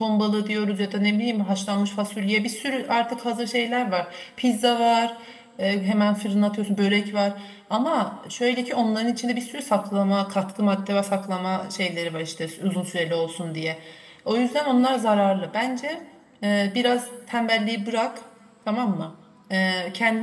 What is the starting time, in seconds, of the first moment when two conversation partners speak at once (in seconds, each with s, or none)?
none